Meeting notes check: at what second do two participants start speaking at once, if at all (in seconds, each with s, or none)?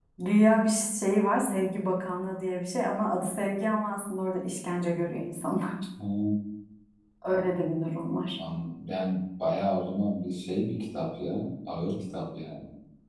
none